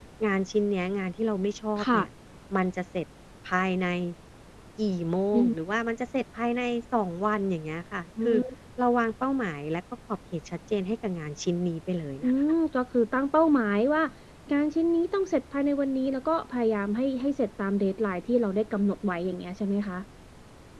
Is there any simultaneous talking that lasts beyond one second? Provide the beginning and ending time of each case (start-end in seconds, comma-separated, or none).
none